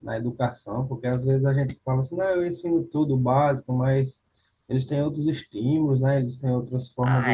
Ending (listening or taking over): taking over